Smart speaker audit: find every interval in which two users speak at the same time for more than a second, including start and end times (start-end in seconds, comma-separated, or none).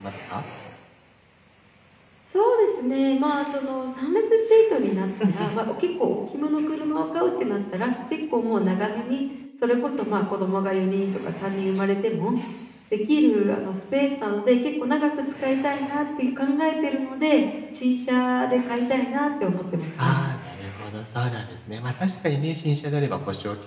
none